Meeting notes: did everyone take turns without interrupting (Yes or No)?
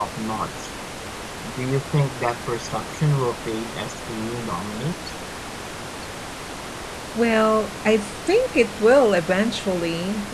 Yes